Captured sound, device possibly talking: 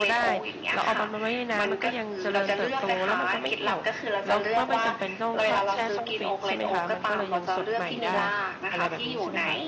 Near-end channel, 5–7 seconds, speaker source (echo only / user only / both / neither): both